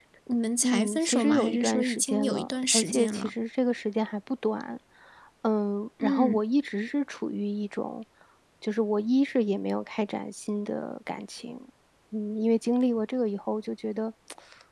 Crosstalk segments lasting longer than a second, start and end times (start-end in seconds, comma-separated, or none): 0.6-3.3